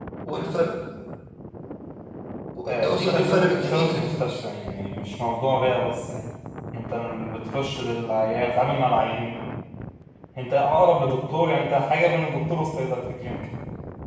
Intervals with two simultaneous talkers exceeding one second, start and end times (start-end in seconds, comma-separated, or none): 2.7-4.4